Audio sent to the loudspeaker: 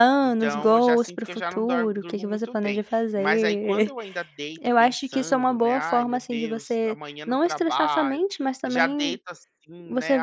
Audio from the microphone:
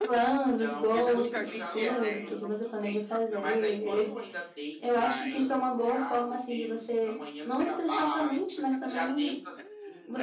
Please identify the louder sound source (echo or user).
echo